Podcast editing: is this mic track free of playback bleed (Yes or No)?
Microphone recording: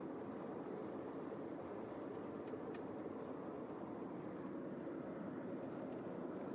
Yes